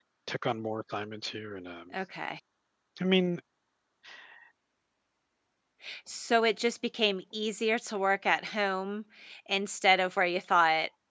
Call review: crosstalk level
none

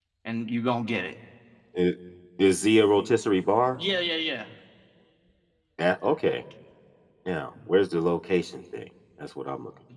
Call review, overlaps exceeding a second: none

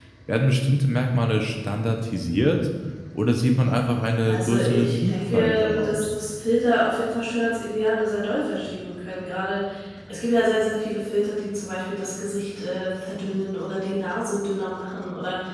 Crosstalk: present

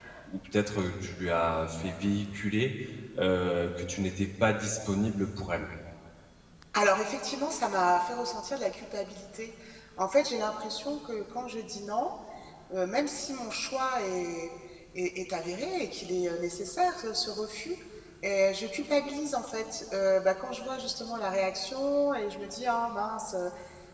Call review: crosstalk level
none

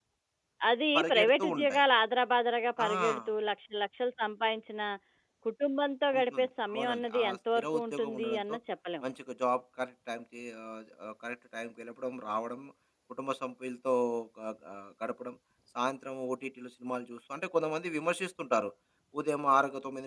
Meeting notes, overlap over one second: present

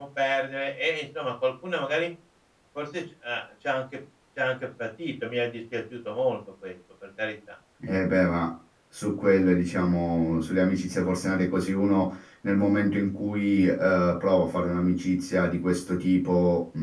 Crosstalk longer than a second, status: none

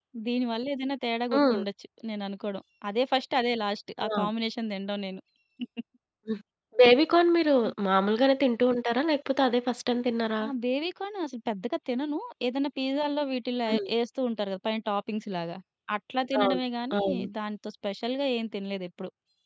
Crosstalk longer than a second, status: none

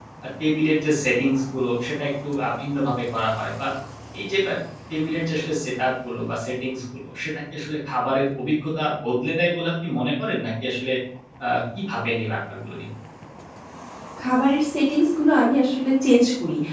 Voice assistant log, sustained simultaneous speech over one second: none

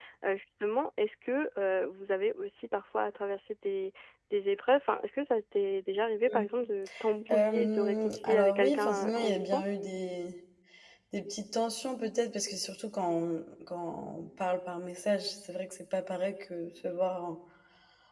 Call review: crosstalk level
present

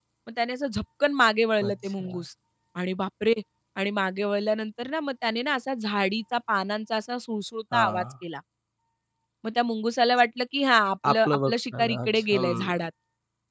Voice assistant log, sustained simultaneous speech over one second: present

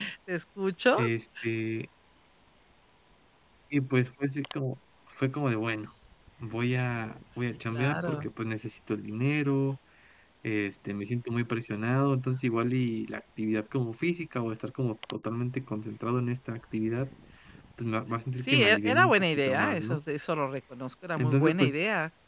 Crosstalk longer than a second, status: present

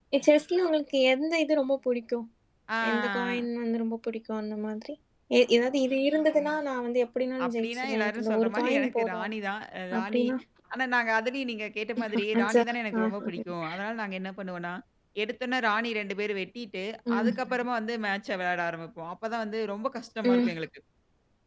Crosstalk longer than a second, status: present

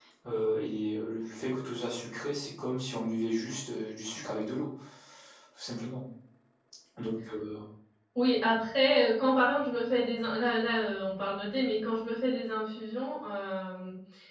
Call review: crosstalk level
none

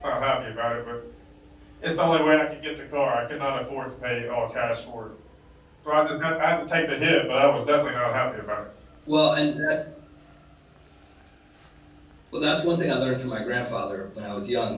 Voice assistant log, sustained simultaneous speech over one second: none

